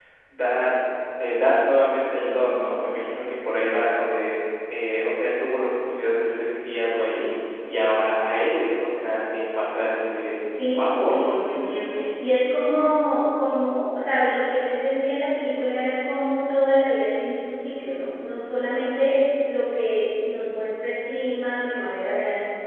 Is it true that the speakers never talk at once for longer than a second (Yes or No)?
No